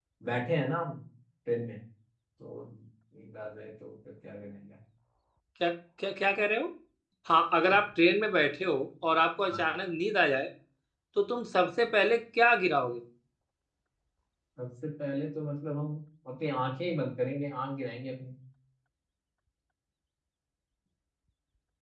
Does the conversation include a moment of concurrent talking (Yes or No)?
No